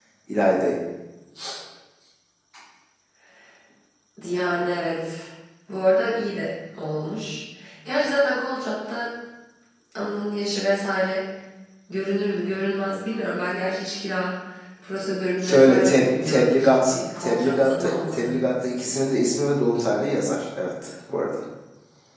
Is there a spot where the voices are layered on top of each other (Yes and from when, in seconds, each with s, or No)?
Yes, from 15.4 s